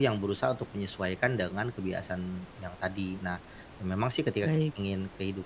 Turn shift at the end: No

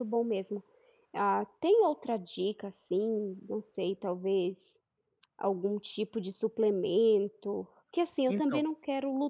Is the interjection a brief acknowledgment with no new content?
Yes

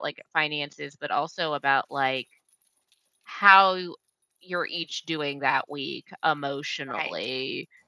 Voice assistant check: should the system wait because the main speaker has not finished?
Yes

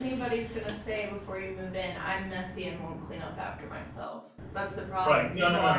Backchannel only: No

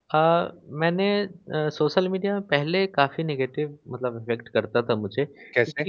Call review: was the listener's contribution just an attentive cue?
Yes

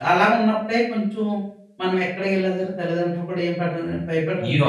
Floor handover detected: Yes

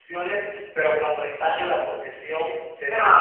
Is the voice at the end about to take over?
No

